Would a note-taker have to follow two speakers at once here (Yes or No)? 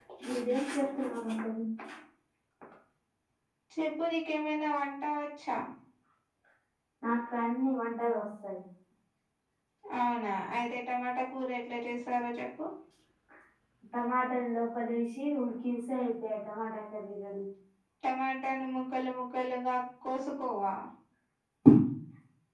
No